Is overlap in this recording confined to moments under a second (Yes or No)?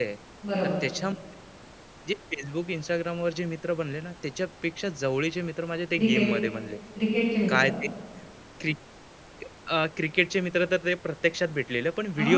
Yes